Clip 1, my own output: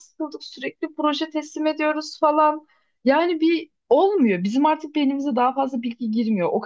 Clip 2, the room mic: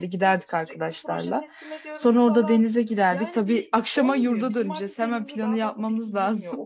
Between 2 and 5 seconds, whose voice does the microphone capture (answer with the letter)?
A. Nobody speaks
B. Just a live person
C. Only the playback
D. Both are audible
D